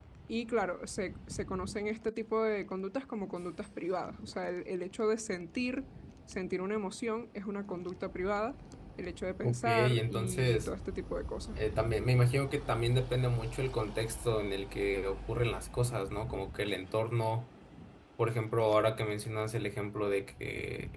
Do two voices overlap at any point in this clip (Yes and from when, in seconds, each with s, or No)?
Yes, from 9.4 s